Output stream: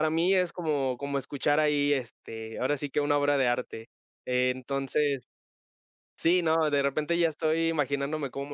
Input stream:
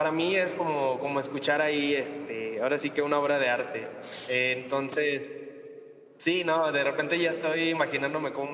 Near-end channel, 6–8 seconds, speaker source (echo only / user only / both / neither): echo only